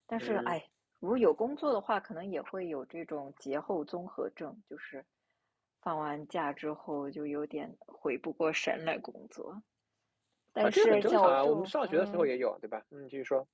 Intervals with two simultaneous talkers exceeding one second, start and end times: 10.6-12.3

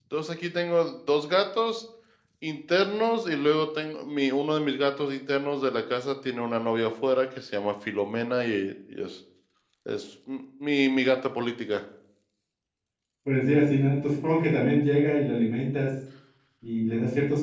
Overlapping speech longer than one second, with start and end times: none

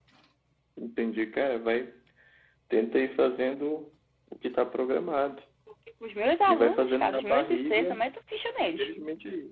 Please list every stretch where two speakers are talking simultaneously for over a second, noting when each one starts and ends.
6.5-8.0

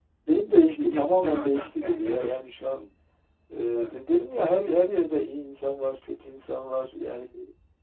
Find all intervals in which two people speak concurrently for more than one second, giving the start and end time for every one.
0.8-2.8

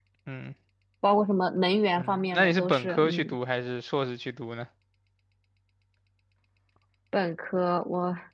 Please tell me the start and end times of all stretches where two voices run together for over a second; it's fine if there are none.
2.0-3.4

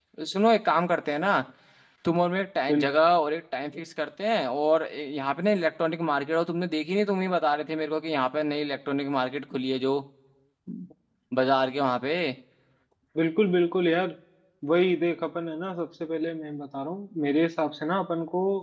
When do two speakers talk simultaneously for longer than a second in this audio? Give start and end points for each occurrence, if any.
none

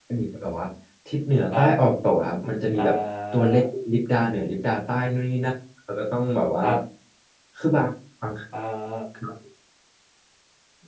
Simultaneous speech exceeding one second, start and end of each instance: none

